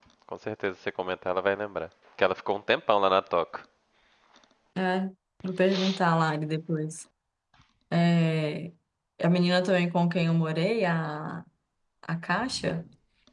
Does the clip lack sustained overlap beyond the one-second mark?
Yes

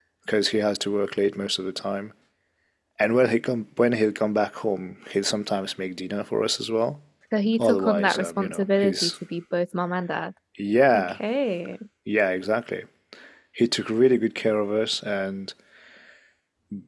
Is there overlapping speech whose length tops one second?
Yes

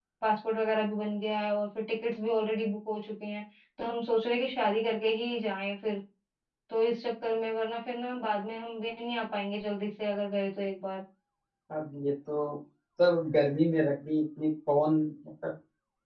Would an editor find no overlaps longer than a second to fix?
Yes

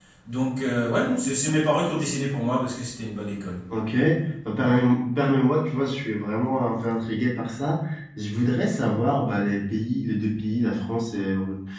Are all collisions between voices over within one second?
Yes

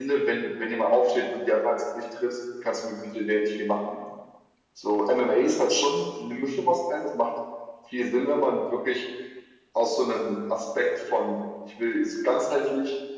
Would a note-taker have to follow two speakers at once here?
No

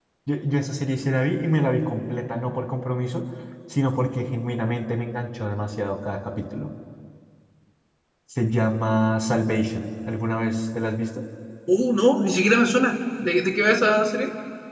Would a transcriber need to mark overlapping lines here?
No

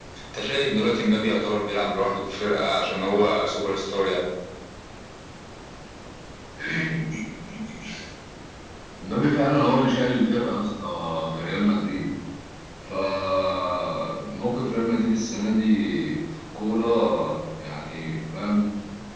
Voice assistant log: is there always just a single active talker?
Yes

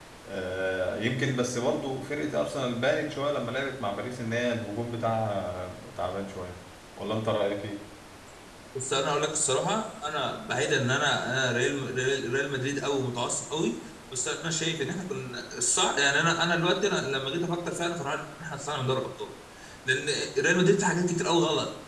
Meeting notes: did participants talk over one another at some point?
No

